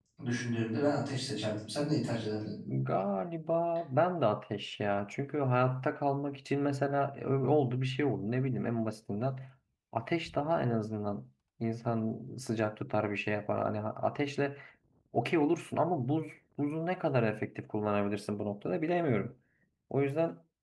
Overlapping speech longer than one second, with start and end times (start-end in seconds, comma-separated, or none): none